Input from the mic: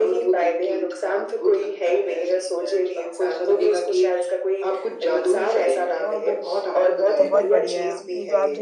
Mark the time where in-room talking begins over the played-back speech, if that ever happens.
7.2 s

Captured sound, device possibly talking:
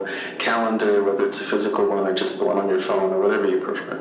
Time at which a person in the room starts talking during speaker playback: none

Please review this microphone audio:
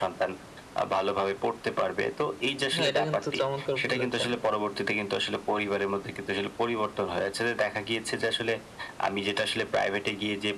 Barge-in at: 2.8 s

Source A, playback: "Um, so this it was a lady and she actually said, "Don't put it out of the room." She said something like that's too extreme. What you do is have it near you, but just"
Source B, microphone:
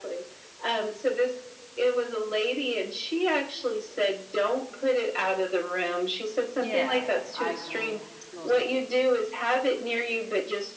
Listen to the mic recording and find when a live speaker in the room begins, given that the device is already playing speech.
6.6 s

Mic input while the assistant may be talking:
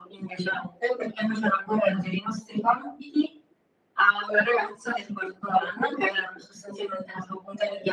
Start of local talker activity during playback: none

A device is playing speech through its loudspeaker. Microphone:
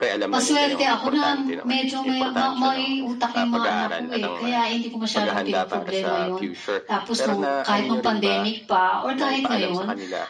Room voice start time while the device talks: 0.3 s

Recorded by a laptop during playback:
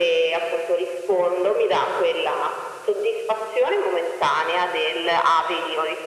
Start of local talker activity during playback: none

